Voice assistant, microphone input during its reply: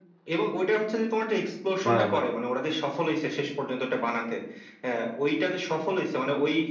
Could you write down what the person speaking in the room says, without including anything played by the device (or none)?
হ্যাঁ হ্যাঁ